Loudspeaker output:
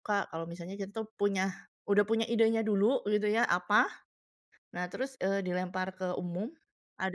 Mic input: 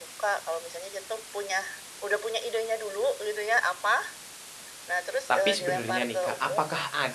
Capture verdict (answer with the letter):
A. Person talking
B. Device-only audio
A